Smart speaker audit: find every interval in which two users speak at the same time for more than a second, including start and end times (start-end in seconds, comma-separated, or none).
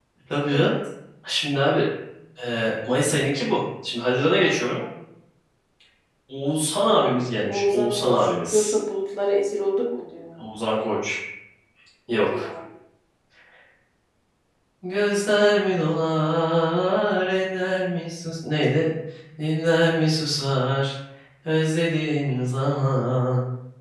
6.9-8.8